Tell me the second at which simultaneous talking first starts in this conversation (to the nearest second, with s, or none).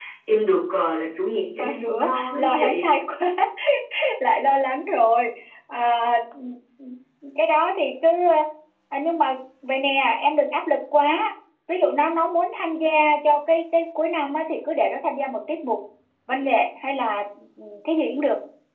2 s